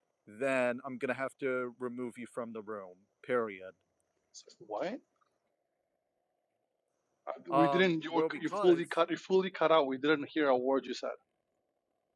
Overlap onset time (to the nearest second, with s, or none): 8 s